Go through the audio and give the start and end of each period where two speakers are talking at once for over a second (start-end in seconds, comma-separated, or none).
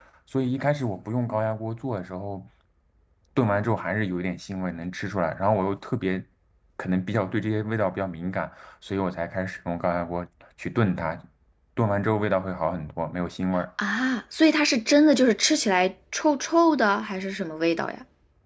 none